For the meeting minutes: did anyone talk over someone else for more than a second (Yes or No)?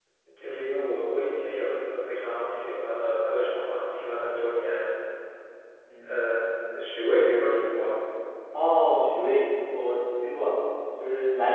No